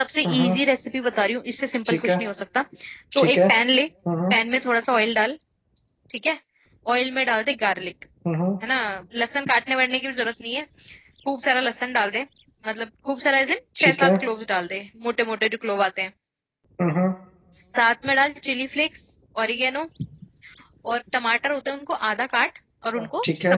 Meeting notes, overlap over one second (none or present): none